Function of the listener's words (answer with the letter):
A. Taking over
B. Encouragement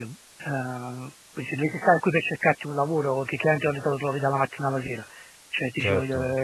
A